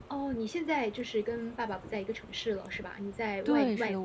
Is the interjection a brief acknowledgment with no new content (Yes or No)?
No